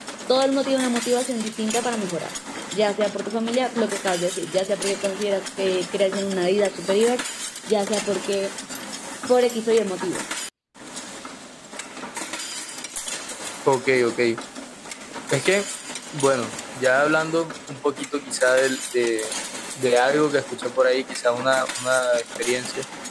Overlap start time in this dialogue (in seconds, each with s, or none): none